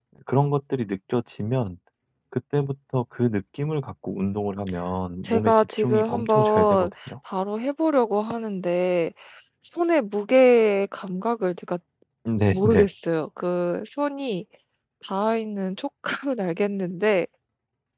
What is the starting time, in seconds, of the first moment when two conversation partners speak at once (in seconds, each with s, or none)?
5.2 s